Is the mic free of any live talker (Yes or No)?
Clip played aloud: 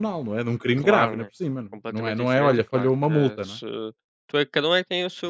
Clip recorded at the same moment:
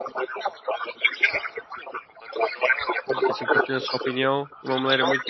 No